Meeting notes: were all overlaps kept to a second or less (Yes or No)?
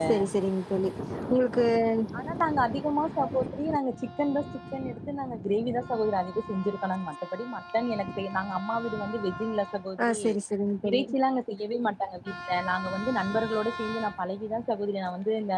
Yes